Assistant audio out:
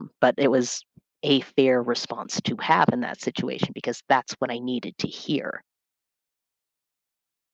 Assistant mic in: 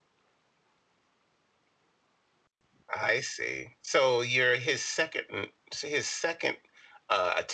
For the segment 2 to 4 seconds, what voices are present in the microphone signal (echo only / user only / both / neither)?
user only